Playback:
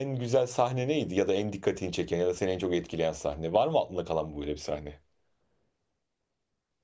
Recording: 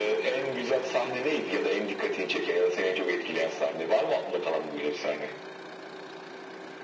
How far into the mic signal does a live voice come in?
none

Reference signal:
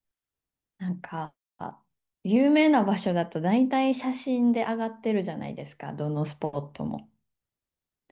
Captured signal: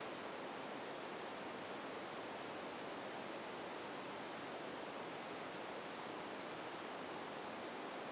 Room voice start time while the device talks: none

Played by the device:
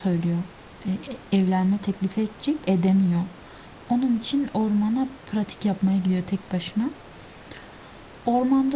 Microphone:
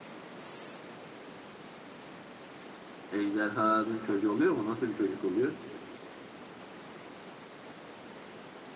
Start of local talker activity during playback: 3 s

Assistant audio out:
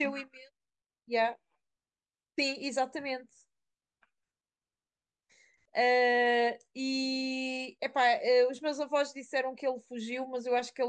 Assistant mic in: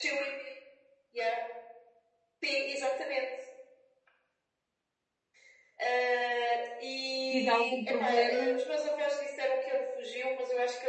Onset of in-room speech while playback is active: 7 s

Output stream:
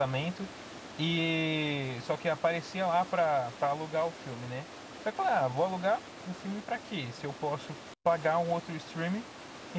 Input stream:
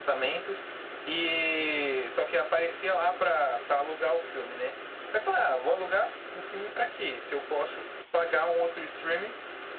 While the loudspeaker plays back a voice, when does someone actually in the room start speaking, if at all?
none

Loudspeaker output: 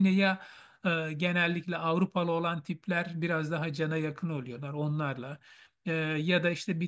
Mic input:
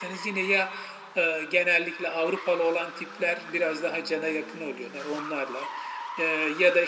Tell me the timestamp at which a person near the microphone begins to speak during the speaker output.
none

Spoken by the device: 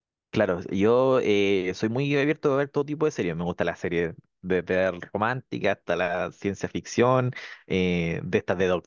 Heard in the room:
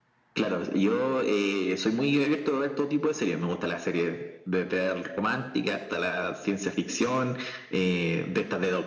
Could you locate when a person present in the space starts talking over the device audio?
none

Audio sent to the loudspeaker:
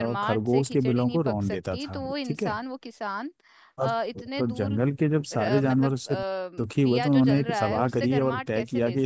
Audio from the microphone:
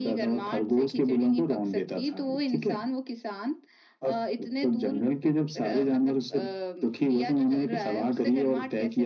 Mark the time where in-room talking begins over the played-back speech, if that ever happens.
none

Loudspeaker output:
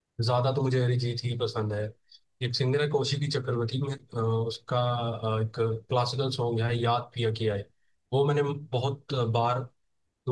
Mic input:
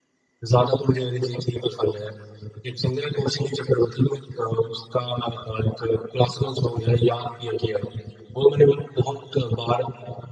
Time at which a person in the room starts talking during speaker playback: none

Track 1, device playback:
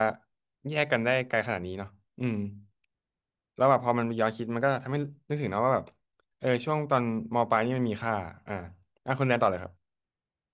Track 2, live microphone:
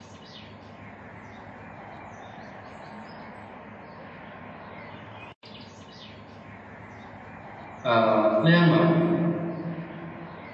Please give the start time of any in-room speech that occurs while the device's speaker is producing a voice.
8 s

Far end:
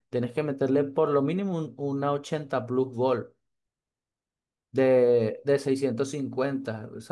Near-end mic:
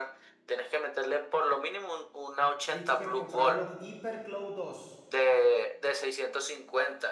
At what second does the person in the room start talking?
3 s

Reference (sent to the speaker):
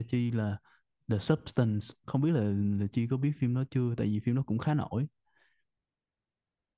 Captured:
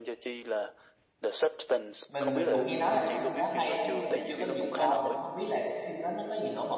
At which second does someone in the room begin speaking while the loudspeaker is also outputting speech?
2 s

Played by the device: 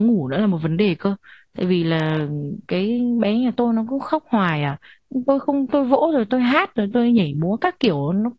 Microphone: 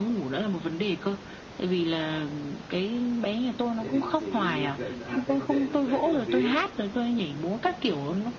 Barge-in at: 4 s

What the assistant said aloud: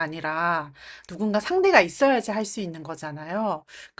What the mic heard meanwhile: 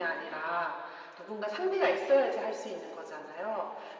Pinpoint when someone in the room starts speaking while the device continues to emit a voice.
none

